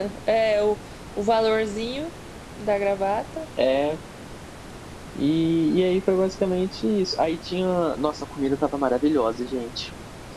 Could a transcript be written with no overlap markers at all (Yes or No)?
Yes